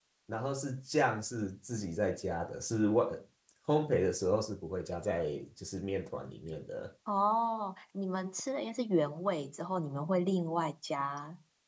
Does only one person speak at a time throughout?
Yes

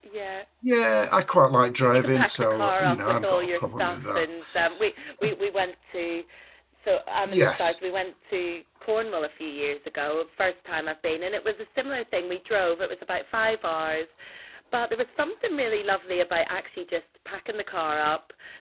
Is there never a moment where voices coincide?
No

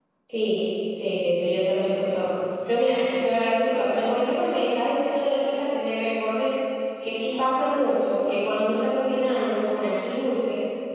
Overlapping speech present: No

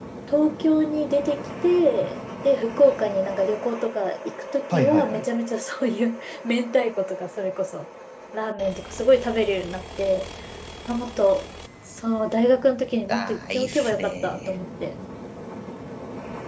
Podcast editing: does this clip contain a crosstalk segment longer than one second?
Yes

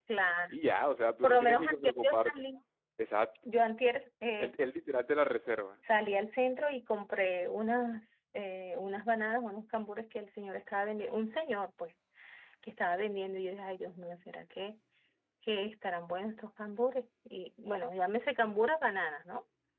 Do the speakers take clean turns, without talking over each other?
No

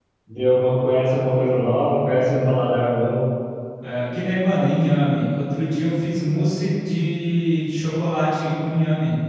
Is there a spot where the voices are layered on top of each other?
No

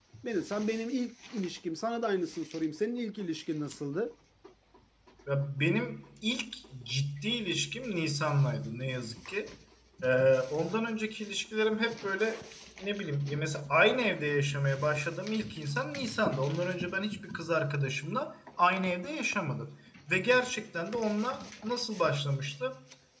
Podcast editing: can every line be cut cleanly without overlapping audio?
Yes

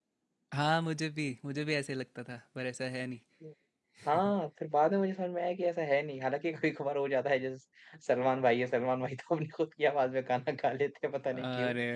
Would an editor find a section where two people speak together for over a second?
No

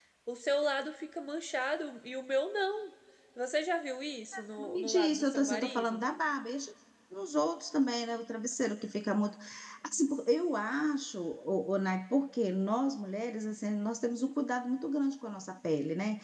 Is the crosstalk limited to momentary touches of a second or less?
No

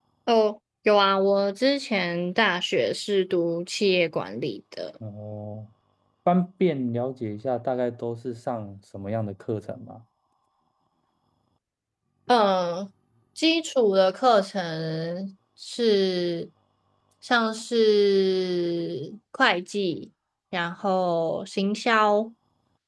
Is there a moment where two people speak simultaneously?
No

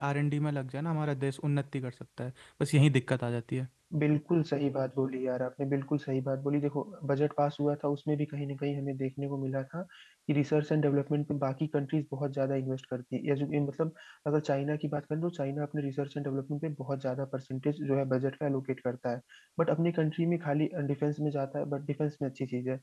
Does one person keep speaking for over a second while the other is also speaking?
No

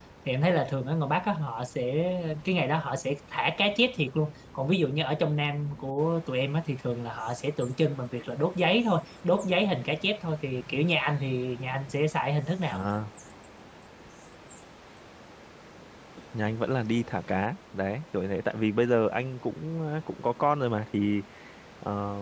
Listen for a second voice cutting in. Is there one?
No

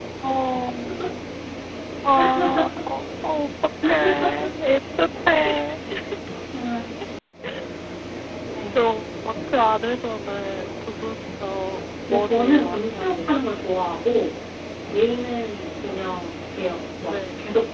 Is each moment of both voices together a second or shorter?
No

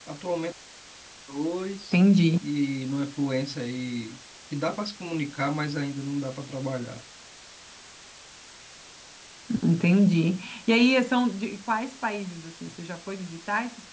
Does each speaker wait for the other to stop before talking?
Yes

